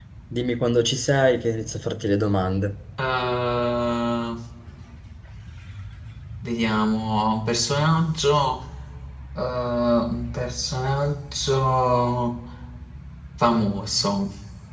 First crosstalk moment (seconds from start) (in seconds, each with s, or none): none